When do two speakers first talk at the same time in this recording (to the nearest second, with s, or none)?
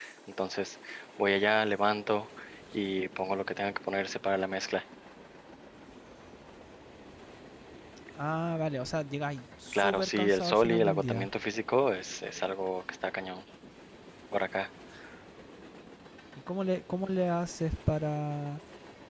10 s